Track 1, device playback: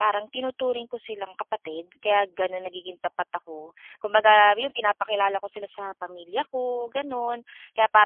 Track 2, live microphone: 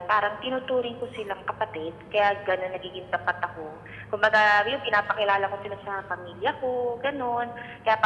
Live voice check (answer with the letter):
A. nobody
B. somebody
A